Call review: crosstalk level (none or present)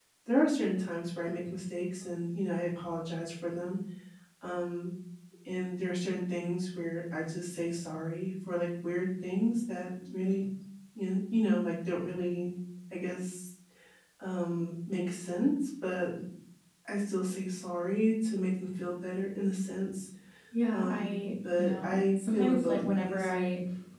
present